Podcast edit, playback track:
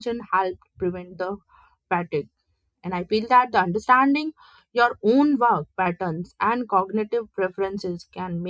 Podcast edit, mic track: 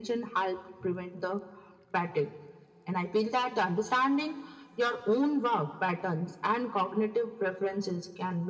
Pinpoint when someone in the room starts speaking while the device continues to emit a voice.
none

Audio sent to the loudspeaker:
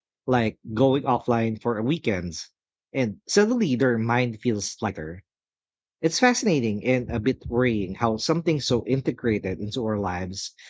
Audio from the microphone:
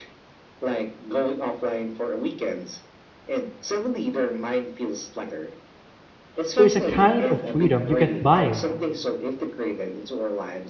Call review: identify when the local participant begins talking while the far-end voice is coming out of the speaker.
6.5 s

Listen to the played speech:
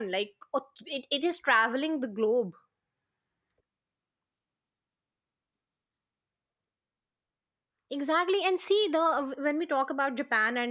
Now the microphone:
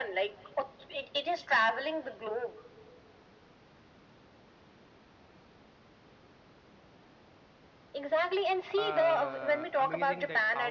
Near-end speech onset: 8.7 s

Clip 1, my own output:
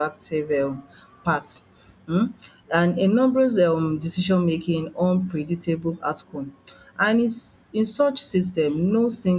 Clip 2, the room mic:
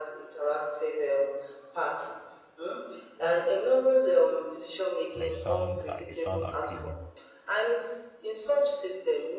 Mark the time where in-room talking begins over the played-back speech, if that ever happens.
5.1 s

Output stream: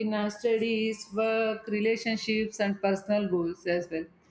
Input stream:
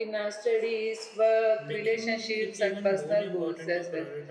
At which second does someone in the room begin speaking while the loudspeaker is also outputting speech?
1.6 s

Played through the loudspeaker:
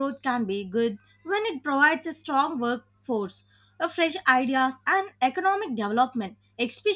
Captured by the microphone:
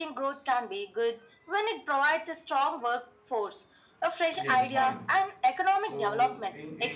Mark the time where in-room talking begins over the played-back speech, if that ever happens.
4.3 s

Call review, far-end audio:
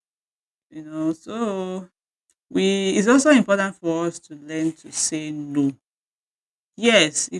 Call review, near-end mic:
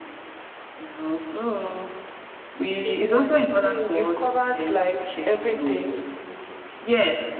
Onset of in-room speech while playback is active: 2.8 s

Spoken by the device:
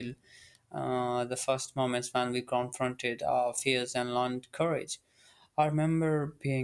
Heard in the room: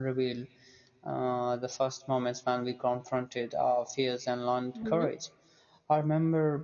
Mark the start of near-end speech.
4.7 s

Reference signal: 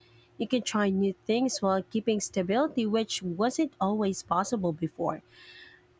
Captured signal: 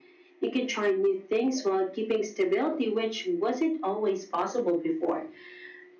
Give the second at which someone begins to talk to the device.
none

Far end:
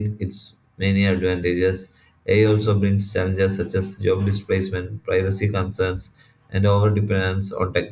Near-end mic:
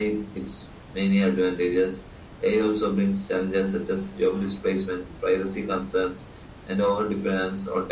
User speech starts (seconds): none

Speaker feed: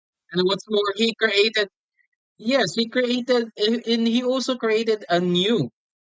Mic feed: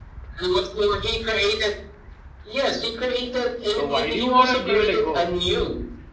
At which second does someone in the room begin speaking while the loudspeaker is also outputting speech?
3.7 s

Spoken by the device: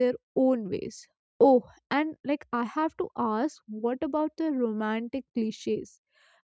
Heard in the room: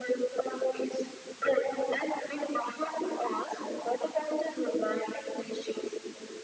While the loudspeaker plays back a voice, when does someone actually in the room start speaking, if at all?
none

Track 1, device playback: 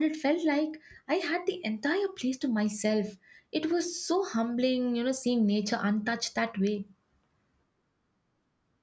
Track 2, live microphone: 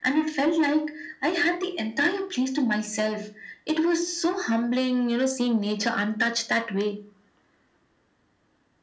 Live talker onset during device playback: none

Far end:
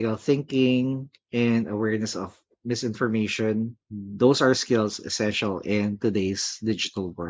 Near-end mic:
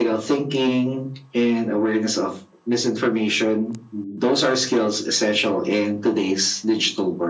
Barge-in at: none

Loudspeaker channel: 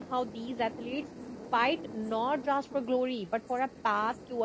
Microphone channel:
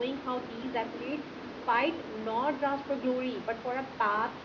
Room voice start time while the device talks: none

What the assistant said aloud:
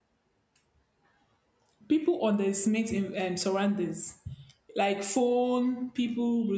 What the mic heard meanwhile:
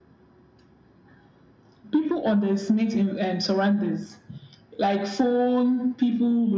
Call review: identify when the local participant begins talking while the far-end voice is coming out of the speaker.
none

